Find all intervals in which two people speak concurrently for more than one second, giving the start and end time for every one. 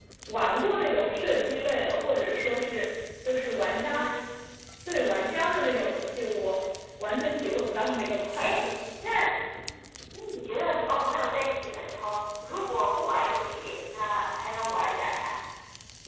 none

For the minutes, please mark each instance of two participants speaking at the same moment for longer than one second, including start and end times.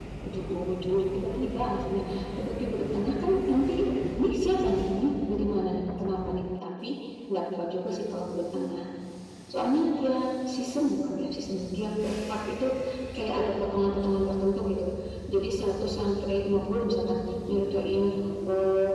none

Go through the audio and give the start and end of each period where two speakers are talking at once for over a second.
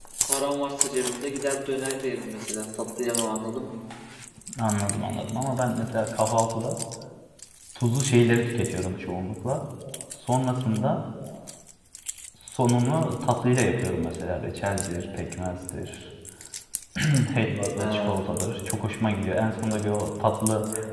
none

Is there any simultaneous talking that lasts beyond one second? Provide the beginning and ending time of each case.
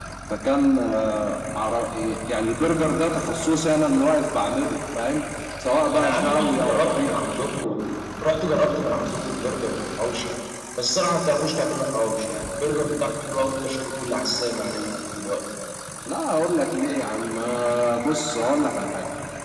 5.9-7.2

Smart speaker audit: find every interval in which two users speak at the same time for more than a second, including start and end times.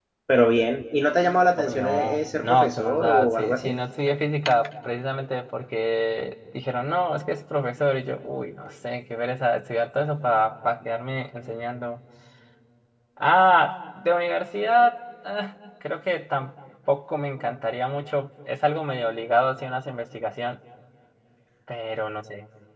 1.6-3.8

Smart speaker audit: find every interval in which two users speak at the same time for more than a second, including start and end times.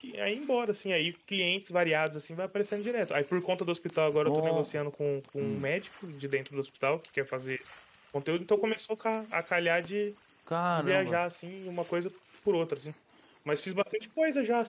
none

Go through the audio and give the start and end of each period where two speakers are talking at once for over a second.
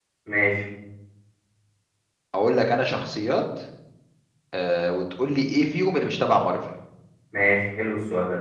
none

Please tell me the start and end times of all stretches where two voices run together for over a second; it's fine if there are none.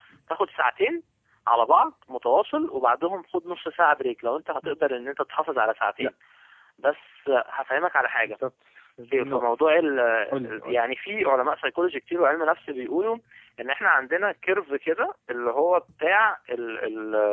none

